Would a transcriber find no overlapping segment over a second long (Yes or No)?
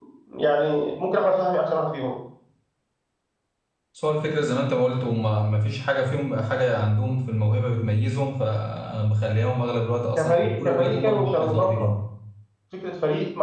No